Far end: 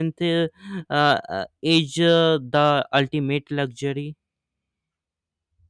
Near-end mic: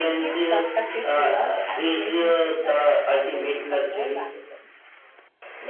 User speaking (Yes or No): Yes